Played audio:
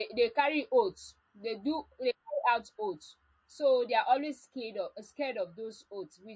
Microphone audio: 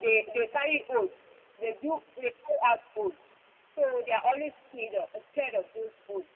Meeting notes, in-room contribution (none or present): none